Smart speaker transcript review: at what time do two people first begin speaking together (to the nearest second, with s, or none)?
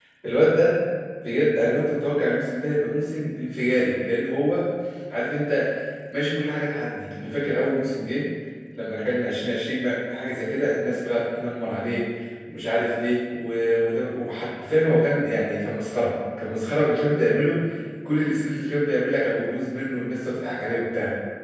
none